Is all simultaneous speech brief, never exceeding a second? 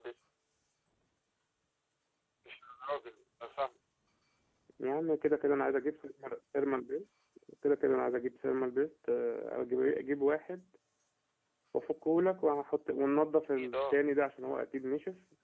Yes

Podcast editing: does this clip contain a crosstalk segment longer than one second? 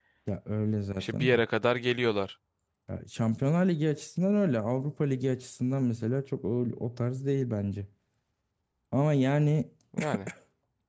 No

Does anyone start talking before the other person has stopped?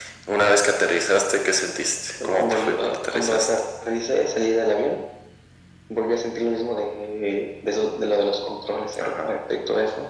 Yes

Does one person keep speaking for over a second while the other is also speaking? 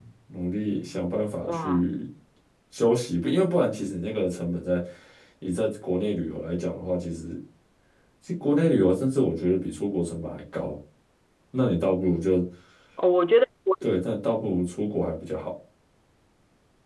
No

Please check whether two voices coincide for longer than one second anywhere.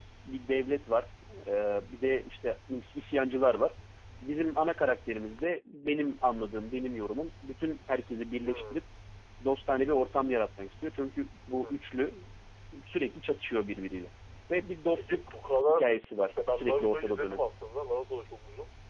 Yes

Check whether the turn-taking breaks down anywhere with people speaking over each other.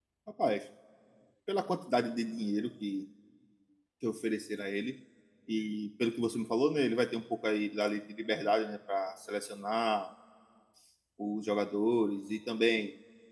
No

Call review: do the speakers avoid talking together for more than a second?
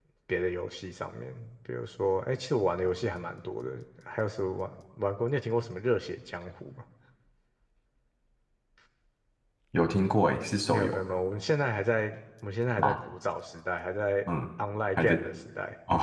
Yes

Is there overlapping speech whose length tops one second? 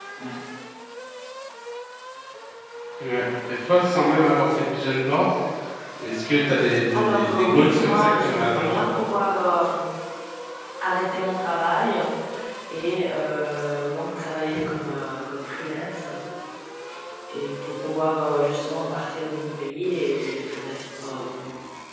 Yes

